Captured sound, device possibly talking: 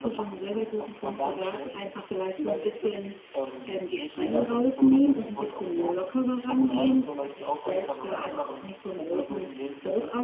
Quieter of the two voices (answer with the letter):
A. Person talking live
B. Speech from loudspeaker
A